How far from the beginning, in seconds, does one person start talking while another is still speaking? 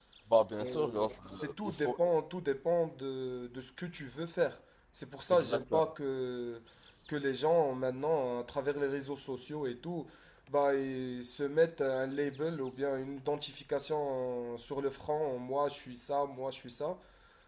0.6 s

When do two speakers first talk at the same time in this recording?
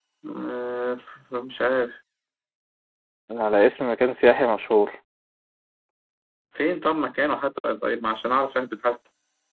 none

